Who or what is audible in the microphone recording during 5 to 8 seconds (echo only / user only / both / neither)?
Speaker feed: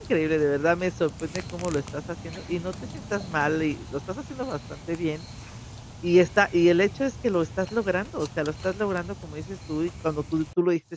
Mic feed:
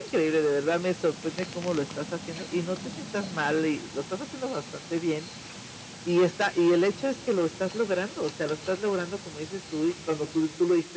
echo only